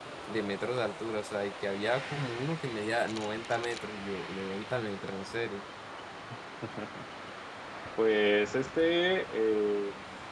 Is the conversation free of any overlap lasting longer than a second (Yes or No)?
Yes